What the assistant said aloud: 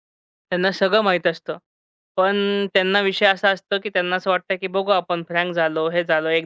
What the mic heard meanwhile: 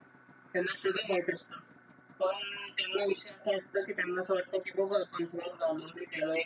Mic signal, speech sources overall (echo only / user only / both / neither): echo only